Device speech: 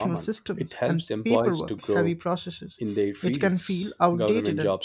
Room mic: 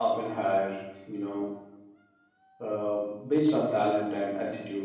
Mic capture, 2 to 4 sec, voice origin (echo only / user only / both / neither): user only